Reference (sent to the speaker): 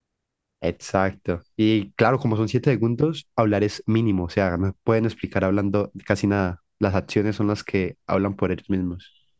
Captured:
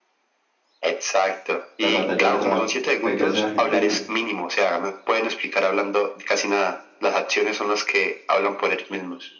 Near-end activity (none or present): present